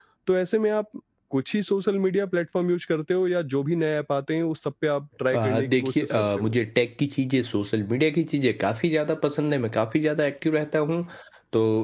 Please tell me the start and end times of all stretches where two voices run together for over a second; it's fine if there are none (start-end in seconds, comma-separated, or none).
5.3-6.5